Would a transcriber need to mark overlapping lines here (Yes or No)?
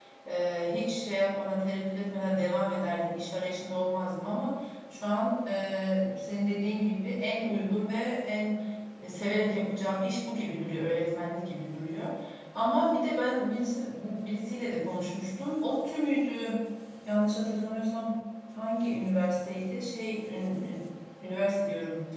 No